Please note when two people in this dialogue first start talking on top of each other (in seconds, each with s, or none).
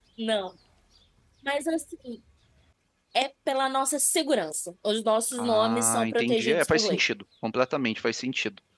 5.3 s